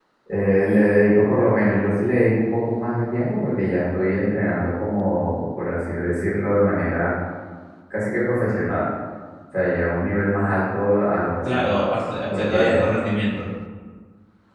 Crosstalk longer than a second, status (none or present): none